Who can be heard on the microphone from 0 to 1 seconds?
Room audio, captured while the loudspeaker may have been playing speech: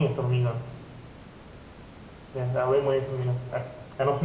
echo only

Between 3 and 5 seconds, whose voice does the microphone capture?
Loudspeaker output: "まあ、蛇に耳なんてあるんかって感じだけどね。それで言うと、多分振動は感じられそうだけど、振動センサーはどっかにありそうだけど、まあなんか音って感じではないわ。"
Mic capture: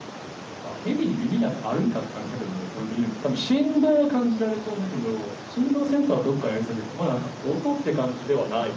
echo only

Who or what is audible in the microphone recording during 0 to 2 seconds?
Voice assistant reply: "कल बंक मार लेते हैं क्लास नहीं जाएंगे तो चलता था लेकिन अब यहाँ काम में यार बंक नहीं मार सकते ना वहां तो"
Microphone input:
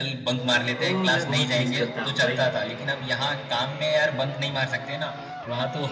both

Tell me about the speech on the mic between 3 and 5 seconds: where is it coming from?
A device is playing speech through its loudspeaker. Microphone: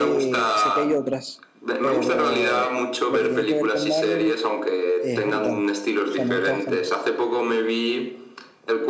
both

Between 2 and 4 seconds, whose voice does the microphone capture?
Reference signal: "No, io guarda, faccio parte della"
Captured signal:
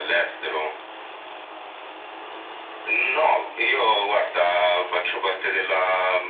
echo only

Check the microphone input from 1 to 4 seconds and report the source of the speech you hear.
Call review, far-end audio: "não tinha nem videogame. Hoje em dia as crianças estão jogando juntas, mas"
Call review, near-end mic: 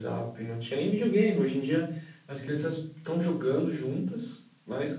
echo only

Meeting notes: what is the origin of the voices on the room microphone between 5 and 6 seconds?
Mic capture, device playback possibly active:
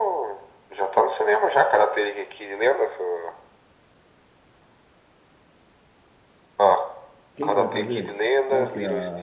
neither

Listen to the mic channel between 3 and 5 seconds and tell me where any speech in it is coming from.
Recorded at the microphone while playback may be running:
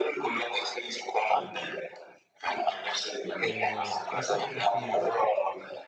both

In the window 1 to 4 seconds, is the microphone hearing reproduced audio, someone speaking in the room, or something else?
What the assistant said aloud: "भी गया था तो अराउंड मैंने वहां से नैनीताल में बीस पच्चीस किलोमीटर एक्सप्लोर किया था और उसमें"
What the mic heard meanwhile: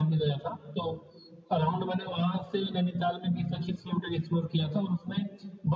echo only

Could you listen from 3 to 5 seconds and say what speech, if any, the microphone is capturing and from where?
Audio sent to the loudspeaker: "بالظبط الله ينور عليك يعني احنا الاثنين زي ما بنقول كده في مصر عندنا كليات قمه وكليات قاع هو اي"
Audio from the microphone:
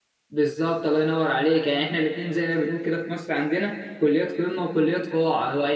echo only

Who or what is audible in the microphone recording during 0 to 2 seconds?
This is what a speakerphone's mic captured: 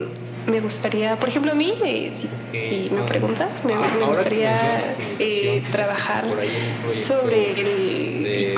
echo only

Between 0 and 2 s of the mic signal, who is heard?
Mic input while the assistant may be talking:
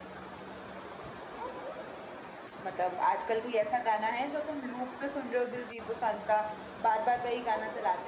neither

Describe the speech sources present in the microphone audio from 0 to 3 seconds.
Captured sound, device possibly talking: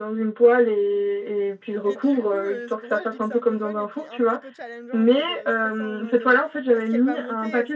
both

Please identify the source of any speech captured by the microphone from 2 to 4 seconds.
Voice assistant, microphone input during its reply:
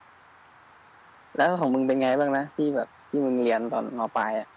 user only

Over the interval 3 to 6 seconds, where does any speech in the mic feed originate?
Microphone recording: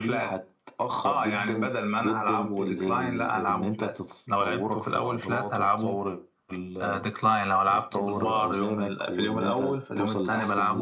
echo only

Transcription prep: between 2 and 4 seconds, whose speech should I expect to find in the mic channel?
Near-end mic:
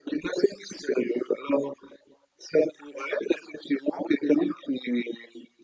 echo only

